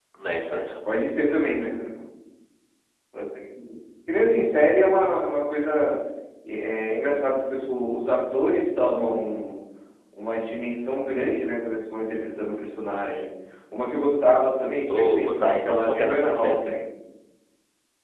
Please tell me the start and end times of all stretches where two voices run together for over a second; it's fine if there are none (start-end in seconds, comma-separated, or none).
14.9-16.7